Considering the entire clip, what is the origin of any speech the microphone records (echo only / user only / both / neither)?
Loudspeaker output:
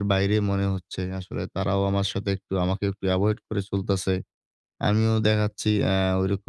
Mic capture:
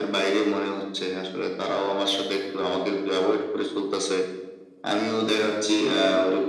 echo only